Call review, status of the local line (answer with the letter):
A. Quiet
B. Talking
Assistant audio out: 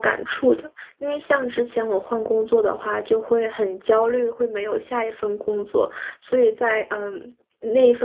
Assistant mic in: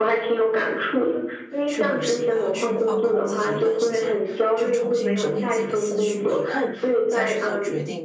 B